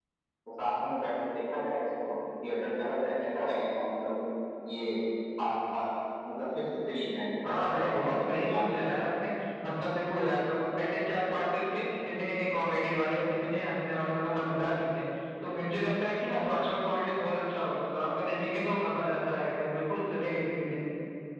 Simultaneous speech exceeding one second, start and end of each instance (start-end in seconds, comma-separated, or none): 7.4-8.8